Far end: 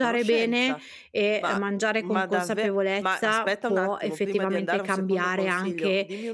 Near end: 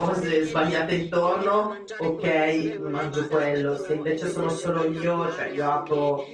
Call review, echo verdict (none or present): present